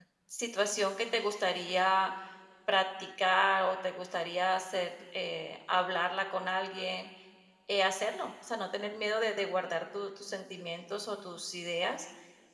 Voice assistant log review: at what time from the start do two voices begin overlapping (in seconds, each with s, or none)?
none